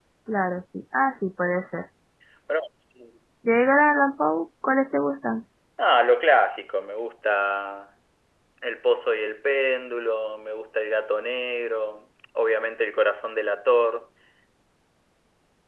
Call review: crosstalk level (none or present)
none